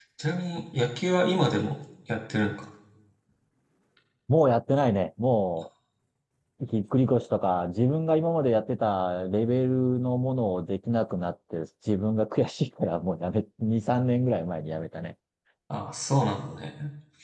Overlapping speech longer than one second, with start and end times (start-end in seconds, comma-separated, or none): none